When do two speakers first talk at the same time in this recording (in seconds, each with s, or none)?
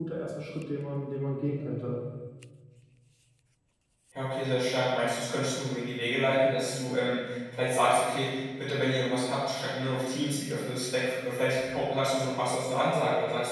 none